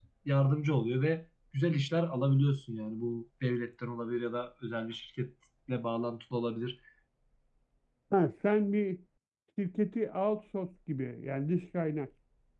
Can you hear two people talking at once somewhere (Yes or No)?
No